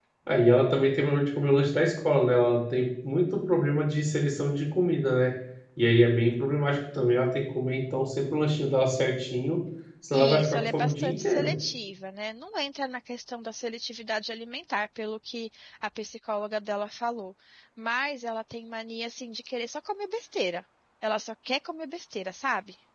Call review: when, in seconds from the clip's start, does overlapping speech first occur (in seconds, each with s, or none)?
10.1 s